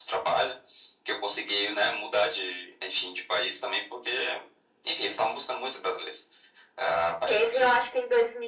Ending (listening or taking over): taking over